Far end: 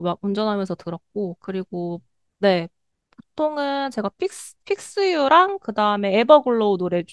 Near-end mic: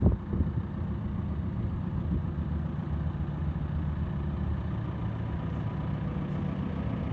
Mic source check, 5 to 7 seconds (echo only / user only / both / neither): neither